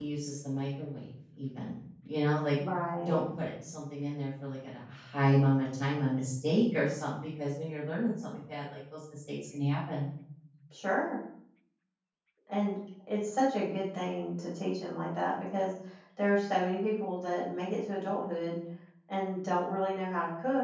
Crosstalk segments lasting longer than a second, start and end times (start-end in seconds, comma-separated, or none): none